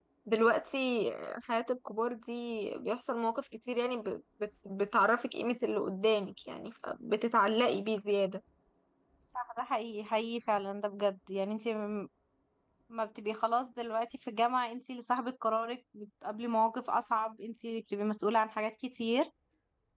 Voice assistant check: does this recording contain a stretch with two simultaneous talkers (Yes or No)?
No